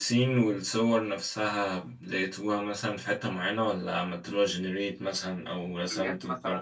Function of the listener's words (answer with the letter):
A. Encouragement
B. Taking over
B